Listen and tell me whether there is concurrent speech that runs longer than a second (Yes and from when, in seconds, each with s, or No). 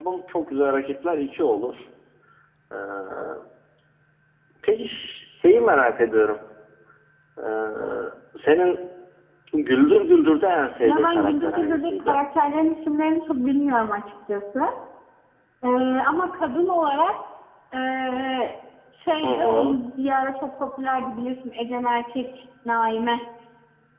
Yes, from 10.8 s